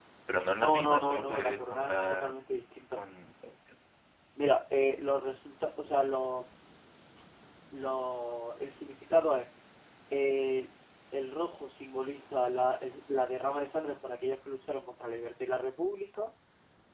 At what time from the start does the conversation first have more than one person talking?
1 s

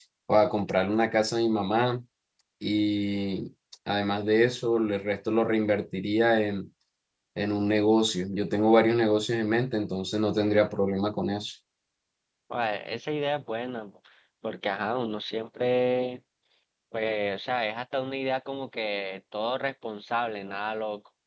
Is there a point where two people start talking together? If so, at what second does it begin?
none

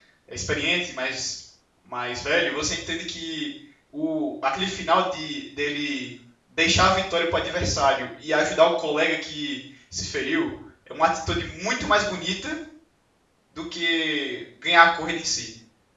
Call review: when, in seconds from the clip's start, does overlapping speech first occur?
none

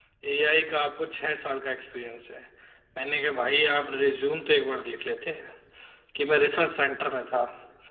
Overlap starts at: none

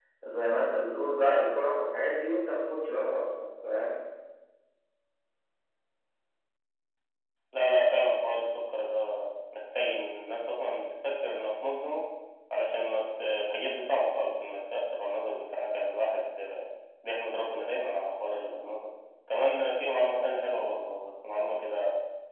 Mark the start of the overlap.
none

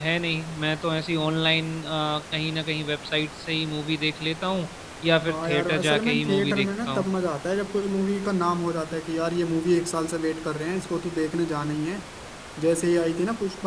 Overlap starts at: 5 s

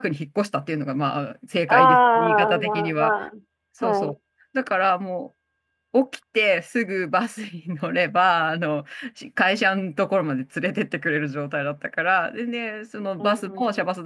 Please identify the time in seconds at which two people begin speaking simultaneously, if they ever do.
2 s

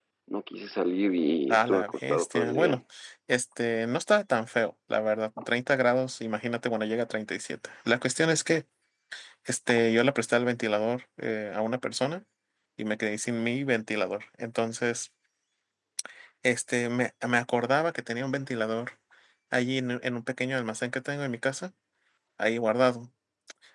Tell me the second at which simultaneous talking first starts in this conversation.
2 s

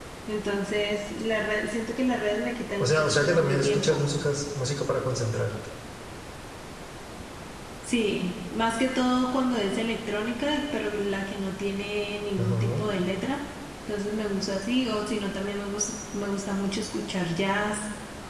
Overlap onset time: 3 s

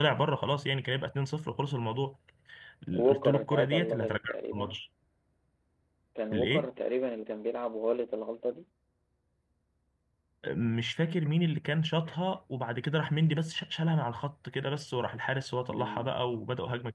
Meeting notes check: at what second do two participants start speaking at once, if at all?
3 s

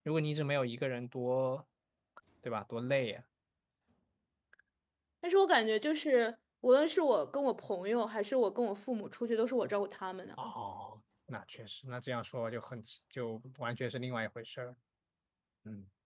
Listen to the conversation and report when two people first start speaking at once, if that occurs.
none

